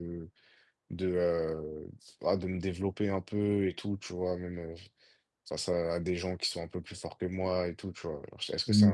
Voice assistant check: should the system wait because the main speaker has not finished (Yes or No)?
Yes